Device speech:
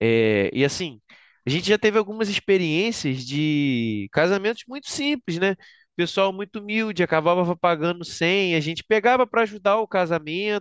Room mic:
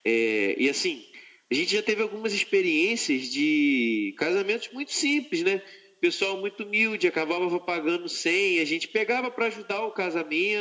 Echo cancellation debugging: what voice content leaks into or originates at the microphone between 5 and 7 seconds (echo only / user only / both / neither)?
echo only